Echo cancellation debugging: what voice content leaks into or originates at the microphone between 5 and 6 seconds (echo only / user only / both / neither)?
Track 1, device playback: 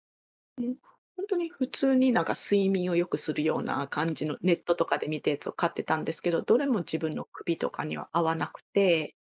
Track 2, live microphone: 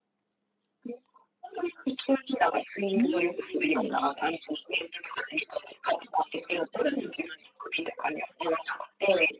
echo only